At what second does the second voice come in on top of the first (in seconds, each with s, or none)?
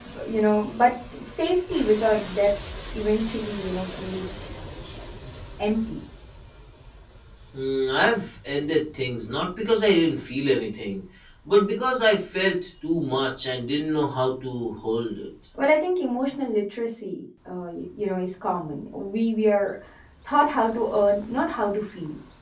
none